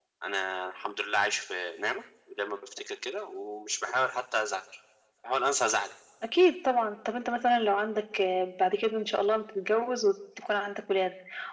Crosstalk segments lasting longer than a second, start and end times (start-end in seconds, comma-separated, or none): none